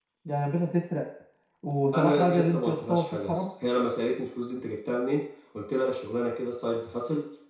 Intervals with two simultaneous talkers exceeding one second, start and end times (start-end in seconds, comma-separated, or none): 1.9-3.5